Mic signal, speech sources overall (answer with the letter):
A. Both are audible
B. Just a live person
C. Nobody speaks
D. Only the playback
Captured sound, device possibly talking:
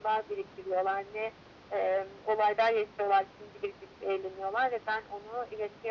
D